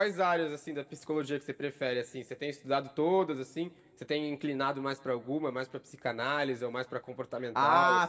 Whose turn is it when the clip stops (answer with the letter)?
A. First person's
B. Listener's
B